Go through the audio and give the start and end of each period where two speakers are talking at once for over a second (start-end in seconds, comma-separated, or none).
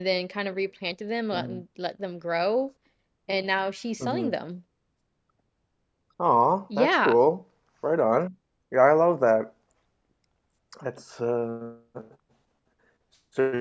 none